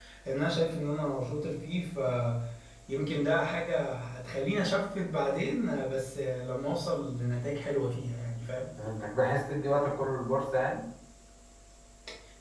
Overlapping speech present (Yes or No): No